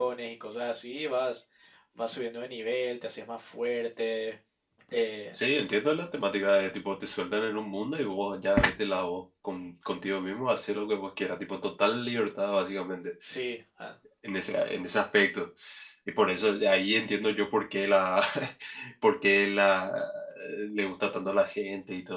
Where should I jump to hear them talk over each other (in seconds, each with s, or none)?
none